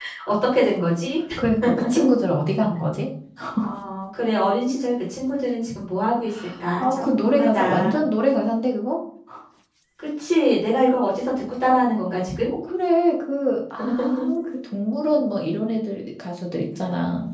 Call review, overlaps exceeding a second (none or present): present